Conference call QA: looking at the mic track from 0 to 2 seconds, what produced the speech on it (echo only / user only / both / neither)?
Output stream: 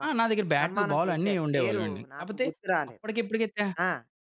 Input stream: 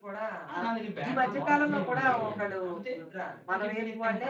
both